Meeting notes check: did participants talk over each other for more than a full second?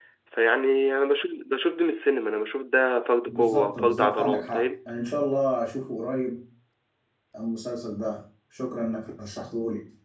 Yes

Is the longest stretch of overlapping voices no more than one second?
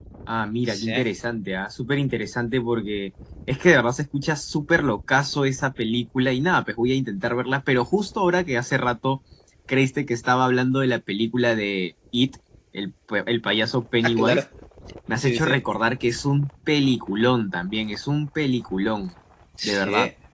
Yes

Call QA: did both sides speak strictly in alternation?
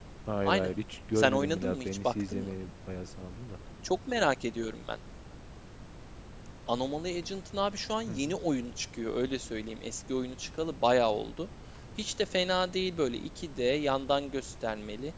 No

